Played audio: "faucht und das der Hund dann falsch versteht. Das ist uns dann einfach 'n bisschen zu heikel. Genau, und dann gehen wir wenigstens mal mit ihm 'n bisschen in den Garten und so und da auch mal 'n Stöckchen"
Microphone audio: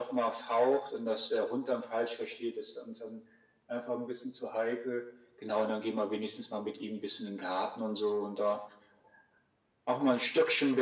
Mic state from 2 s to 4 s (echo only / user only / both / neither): echo only